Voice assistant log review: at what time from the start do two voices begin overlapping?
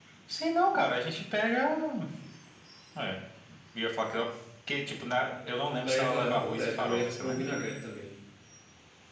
5.8 s

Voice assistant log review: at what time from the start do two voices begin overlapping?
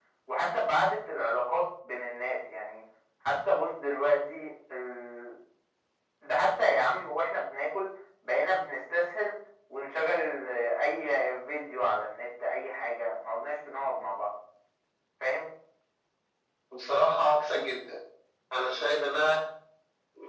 none

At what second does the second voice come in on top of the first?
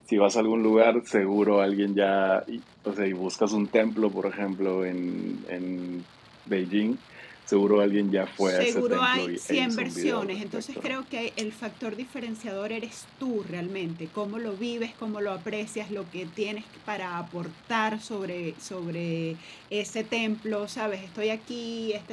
8.4 s

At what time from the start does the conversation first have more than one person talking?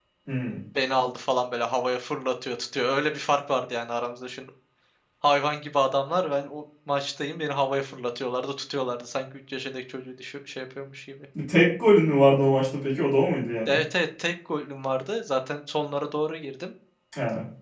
none

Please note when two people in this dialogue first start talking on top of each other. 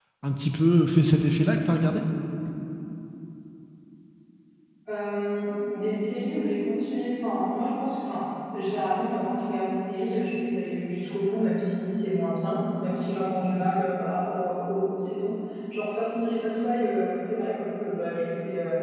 none

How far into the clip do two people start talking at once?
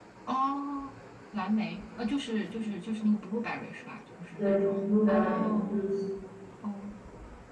4.4 s

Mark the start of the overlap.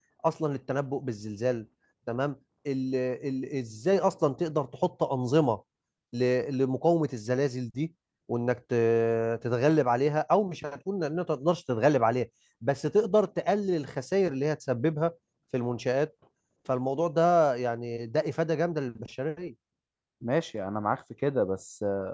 none

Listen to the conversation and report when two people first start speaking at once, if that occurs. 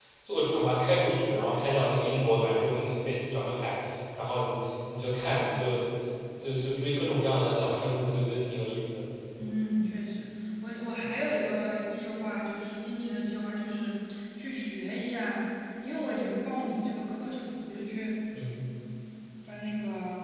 none

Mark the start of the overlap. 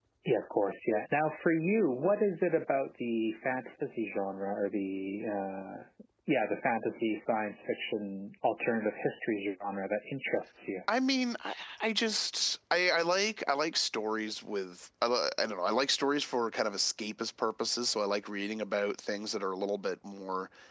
none

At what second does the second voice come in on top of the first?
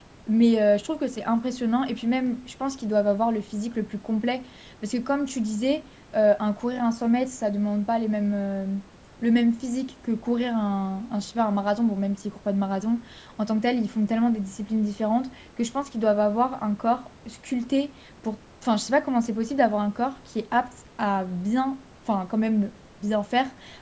none

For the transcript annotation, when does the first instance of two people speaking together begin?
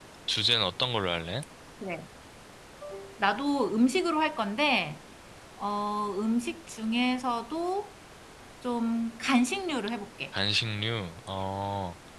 none

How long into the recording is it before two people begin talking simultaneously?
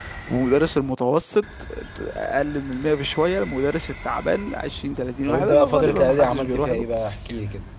5.3 s

